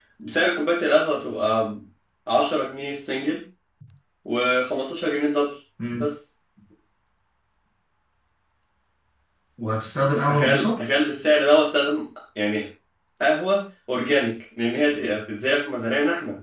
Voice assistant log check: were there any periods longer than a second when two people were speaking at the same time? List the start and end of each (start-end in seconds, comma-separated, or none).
none